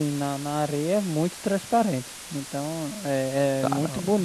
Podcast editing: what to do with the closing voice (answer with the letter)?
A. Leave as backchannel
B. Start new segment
A